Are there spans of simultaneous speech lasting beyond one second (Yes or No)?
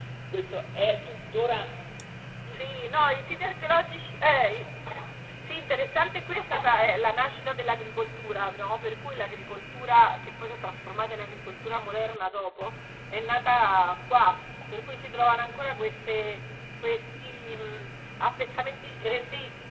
No